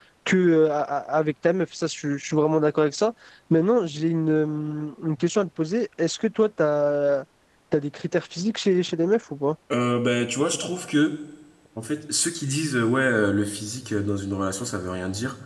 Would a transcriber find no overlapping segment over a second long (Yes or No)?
Yes